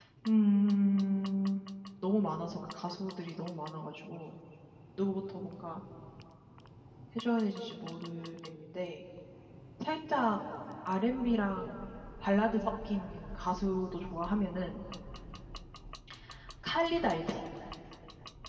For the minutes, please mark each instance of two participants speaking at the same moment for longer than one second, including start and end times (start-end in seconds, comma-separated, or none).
none